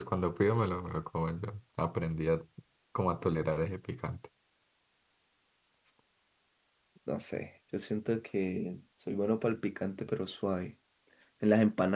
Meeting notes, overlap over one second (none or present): none